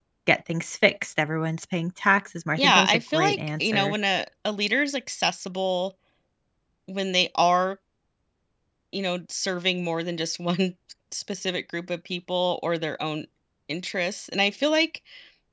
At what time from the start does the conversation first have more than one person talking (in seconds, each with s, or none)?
2.6 s